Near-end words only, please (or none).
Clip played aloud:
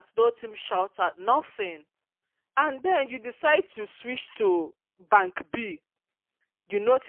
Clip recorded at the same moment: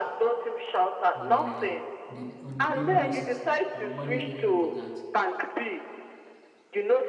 in a in a on a daily basis. You know, money is very very important.